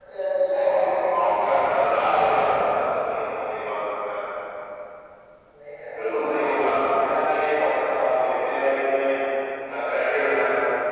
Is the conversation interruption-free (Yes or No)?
No